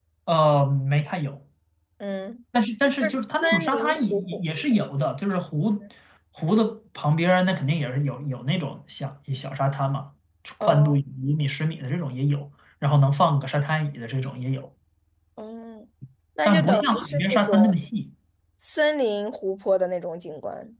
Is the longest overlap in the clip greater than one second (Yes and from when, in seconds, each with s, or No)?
Yes, from 3.0 s